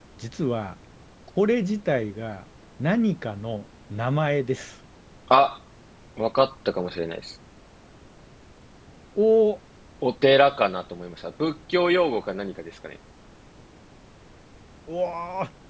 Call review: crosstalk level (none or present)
none